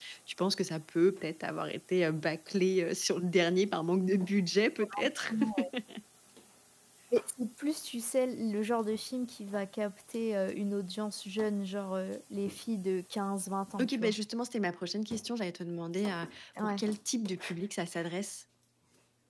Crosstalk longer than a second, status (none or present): none